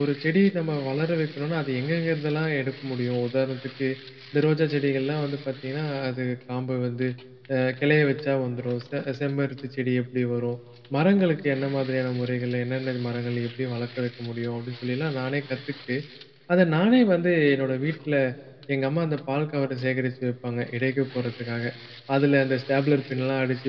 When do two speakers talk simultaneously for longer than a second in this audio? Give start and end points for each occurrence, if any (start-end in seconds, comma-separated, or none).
none